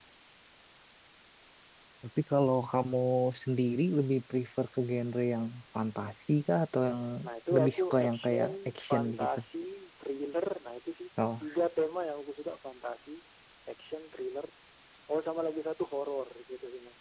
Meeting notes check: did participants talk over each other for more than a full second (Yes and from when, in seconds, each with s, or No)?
Yes, from 7.5 s